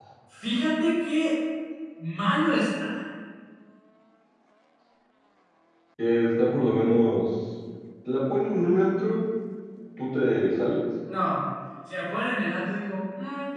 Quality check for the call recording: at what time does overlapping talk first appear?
none

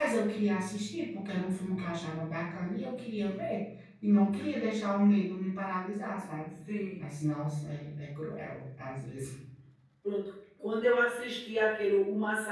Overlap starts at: none

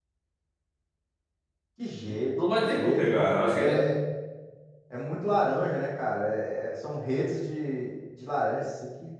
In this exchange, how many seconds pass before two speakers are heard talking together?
3 s

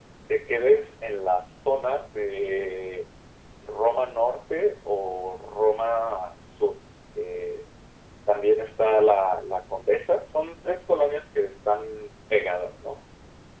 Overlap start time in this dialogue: none

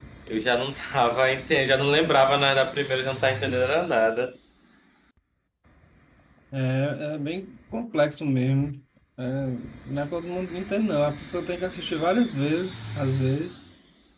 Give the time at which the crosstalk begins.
none

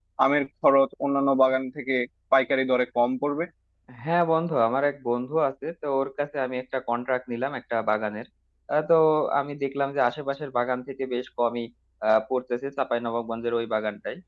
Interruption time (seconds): none

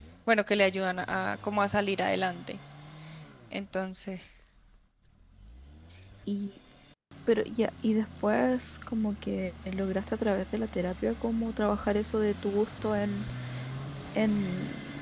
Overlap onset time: none

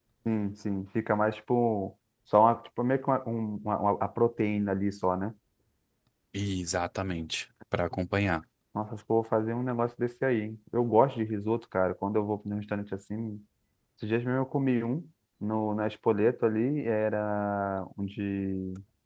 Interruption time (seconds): none

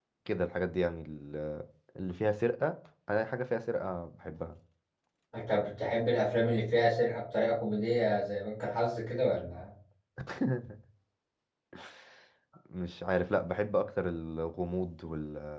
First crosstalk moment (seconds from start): none

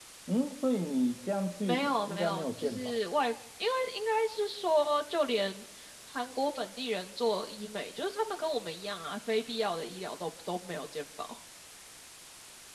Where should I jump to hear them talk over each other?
2 s

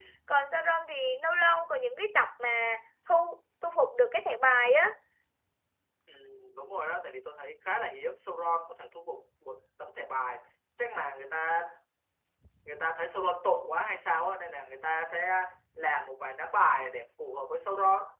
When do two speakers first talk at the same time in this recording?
none

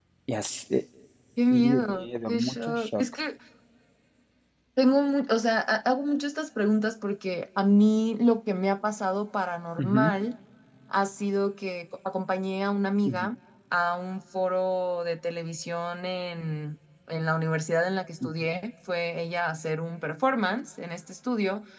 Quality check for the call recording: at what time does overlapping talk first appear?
2 s

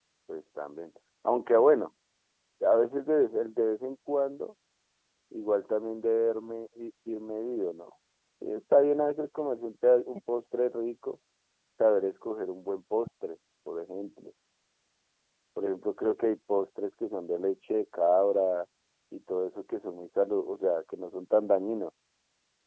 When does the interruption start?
none

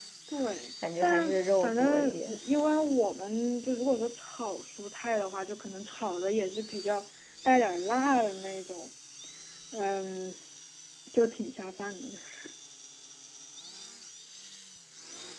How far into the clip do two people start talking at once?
1 s

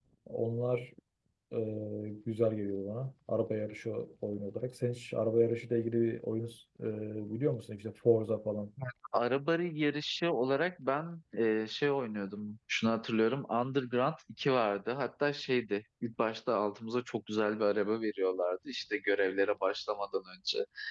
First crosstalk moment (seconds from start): none

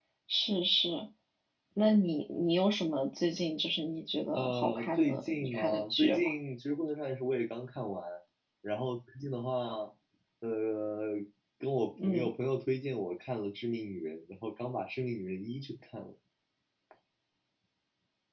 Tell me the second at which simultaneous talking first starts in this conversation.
4 s

